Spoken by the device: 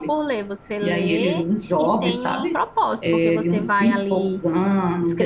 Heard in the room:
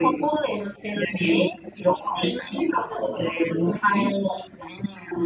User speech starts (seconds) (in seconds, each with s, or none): none